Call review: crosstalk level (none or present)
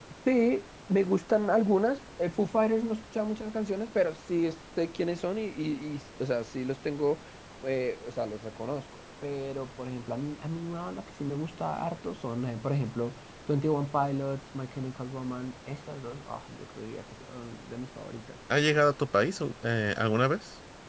none